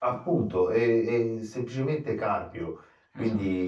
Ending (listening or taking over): listening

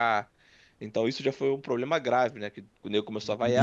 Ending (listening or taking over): taking over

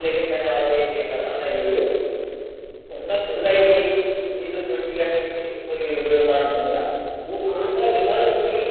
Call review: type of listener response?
listening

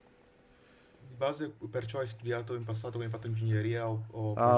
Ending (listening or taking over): taking over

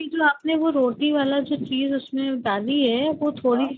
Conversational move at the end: listening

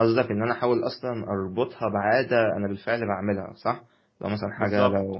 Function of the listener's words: listening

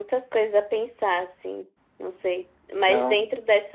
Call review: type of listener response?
listening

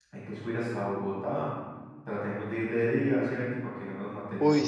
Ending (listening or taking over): taking over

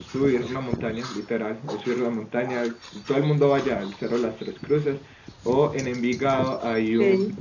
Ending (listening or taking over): listening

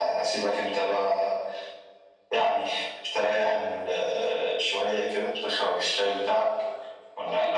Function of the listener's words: listening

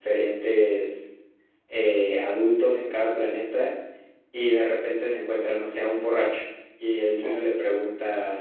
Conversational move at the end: listening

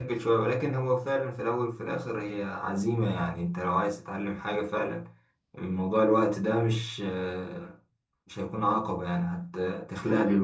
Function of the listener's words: listening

